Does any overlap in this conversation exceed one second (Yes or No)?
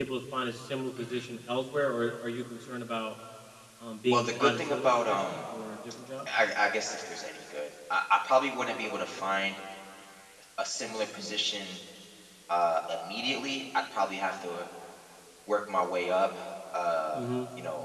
Yes